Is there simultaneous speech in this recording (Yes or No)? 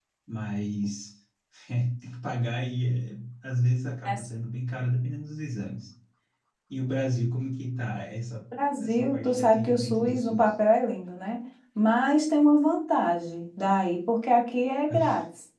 Yes